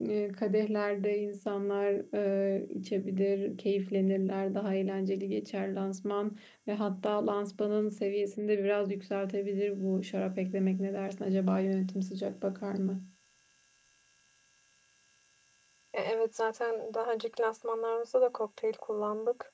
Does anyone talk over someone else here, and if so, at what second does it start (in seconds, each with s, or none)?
none